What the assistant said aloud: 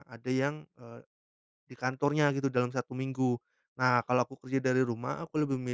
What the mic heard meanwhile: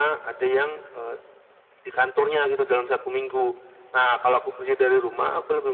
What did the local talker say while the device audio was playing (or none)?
none